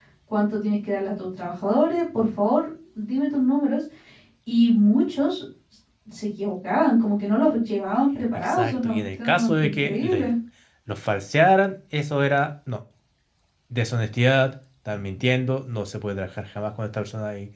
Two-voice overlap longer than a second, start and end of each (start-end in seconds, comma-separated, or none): 8.4-10.3